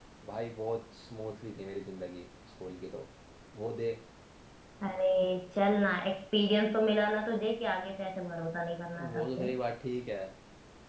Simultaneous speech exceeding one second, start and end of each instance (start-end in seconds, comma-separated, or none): none